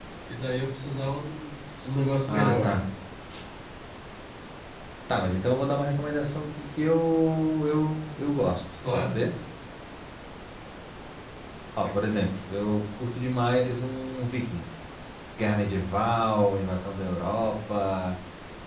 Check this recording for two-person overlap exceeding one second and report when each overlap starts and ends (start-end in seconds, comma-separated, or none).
none